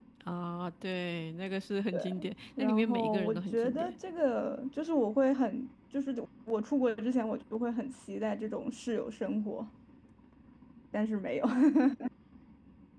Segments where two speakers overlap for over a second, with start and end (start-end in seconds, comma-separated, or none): 2.6-3.9